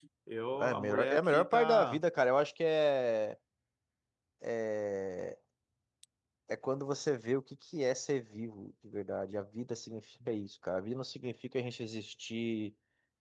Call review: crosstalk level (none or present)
present